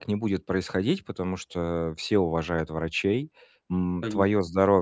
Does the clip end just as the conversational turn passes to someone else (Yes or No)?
No